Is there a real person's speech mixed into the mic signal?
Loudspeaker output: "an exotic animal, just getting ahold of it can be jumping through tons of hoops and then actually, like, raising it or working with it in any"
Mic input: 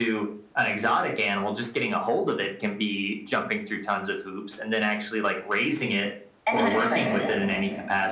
Yes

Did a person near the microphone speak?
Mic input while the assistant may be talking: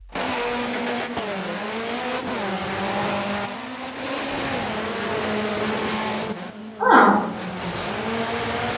Yes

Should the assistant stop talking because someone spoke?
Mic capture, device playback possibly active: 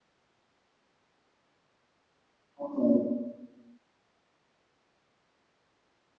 Yes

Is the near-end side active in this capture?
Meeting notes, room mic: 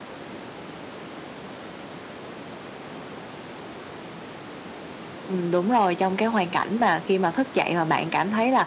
Yes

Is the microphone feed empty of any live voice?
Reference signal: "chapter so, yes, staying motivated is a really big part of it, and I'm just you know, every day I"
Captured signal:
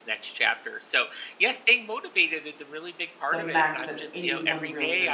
No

